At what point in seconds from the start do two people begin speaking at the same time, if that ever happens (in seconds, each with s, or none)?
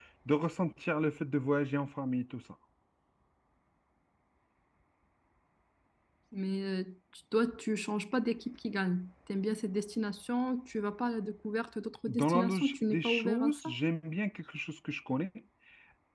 12.1 s